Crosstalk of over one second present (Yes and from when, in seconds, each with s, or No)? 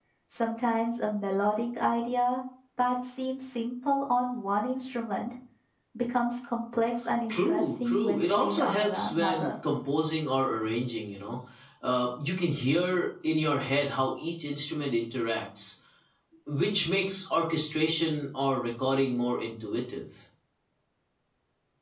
Yes, from 7.3 s